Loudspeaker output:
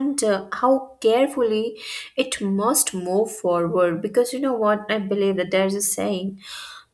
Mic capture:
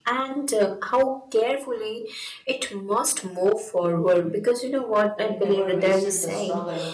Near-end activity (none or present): present